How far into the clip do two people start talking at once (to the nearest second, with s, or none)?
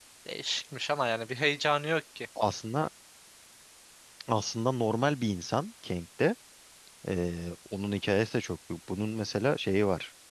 none